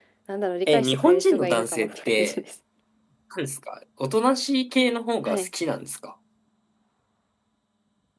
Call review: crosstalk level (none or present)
present